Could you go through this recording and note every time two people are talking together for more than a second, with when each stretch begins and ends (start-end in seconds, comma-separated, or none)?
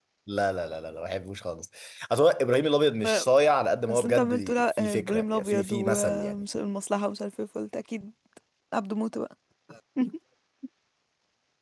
3.9-6.4